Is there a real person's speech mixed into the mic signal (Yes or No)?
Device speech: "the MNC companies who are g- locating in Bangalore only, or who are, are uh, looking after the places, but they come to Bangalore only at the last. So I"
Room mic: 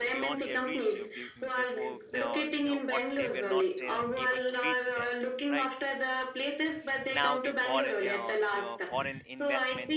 Yes